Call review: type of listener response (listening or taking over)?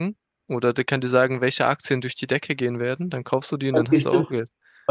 taking over